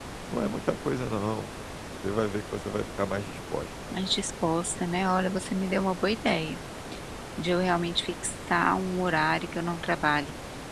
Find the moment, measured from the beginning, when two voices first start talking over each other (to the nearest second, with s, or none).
none